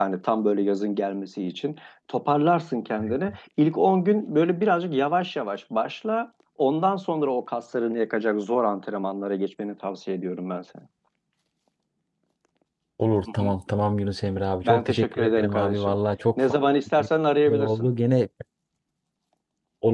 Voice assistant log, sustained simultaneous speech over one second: present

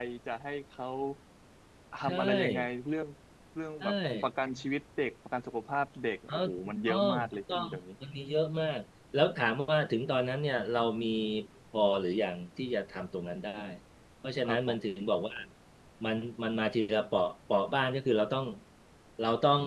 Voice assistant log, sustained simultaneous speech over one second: present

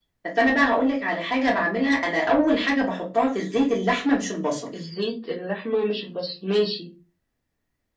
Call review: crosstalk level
none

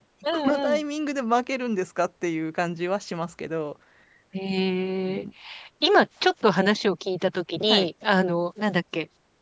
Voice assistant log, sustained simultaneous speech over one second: none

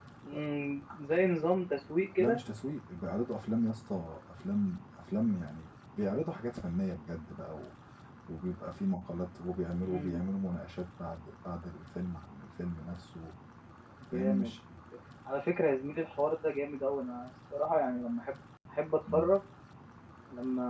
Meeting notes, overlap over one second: none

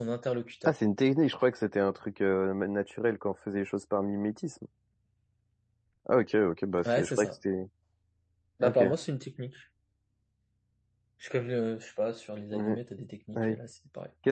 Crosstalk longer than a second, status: none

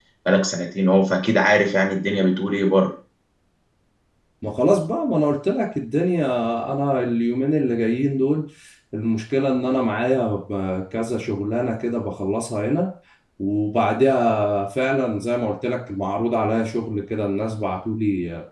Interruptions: none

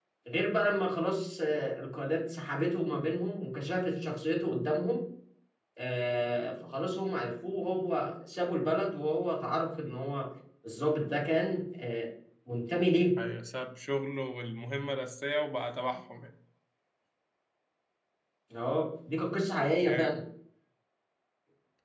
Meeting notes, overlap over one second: none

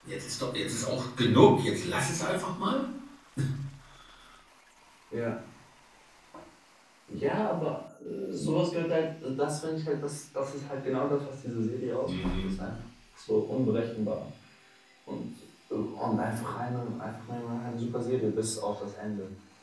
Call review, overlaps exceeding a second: none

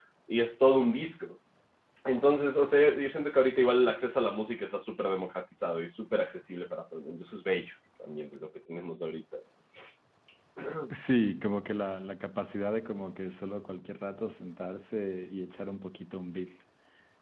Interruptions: none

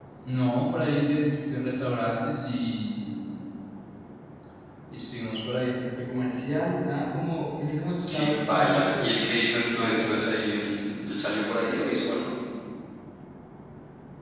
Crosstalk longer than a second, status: present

